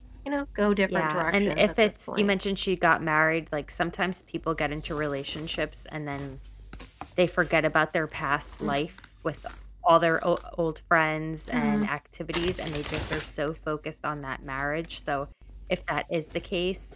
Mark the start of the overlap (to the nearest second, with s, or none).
1 s